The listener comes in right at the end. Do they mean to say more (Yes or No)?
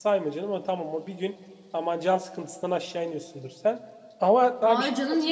Yes